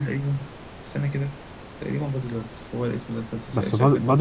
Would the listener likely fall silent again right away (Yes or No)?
No